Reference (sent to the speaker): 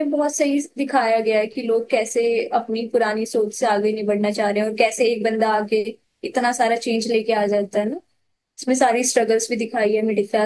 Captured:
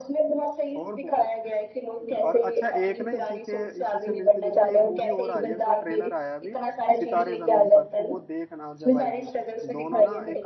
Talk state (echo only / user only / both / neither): both